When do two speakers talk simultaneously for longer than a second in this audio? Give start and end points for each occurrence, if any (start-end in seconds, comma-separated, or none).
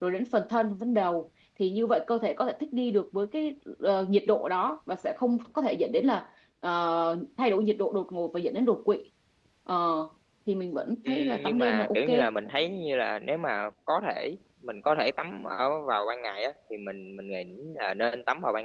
11.1-12.3